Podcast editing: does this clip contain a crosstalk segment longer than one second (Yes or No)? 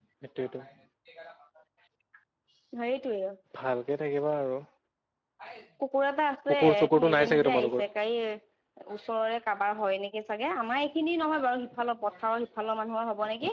Yes